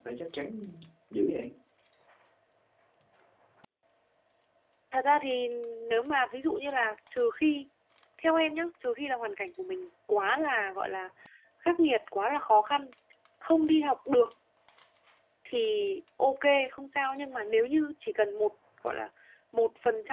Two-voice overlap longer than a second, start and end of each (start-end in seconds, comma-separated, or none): none